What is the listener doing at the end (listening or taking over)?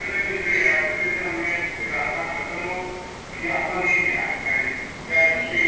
taking over